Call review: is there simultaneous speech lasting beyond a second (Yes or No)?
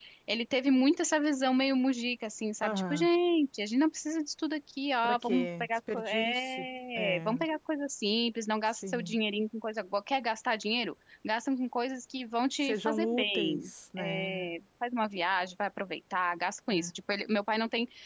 Yes